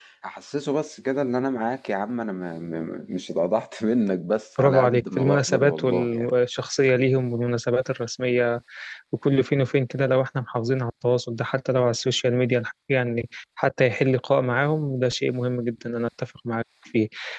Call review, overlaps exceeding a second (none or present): present